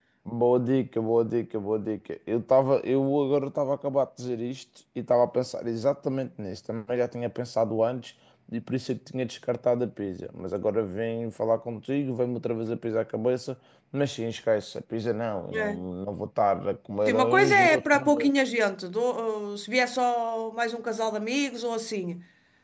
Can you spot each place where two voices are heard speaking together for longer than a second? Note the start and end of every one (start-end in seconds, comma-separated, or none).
17.1-18.3